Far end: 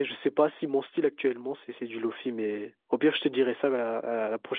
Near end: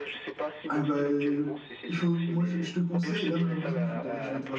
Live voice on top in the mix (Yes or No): Yes